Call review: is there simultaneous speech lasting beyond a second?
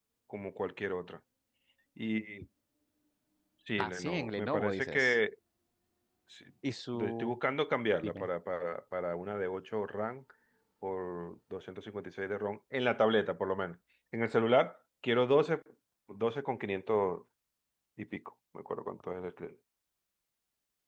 Yes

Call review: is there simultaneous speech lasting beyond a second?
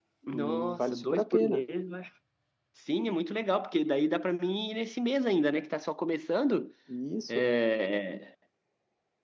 Yes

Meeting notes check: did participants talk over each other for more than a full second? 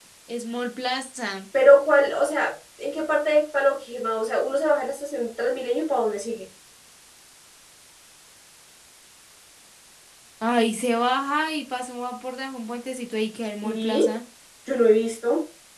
No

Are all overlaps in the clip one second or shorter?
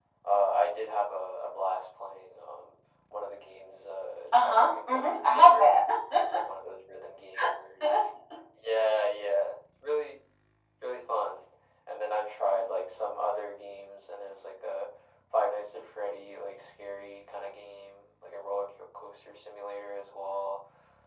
No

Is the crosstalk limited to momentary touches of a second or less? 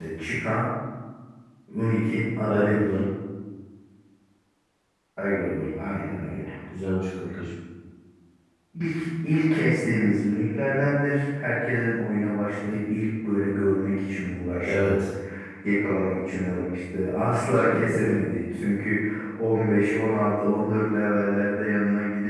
Yes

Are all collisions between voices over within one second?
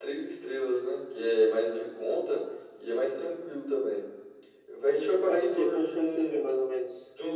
No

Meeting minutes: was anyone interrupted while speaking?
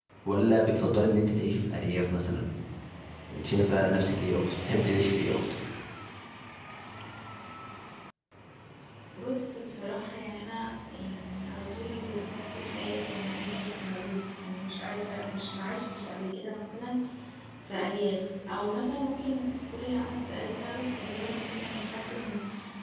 No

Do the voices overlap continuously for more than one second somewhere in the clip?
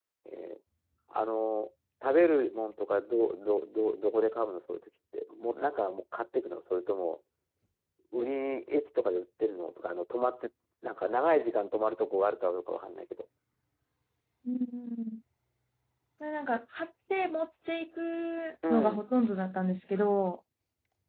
No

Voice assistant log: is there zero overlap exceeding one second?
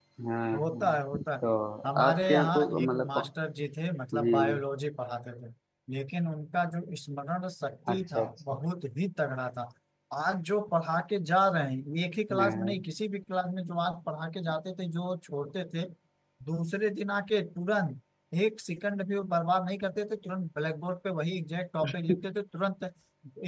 No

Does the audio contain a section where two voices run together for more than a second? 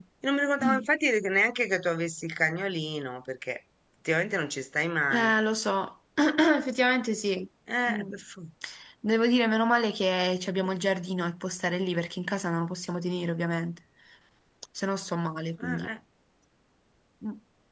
No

